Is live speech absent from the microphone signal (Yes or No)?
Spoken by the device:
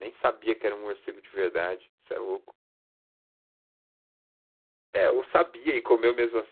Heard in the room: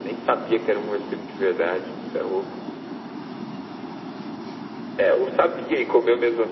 Yes